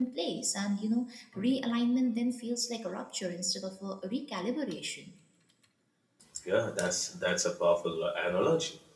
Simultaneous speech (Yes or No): No